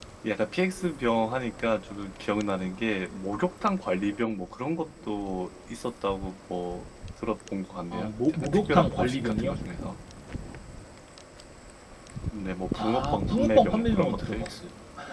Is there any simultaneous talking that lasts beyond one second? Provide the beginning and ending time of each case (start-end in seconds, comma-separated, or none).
7.9-9.6, 12.8-14.5